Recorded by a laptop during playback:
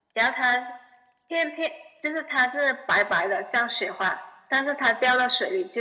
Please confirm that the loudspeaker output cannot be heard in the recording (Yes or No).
No